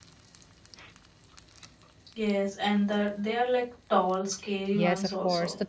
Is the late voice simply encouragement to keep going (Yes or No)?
No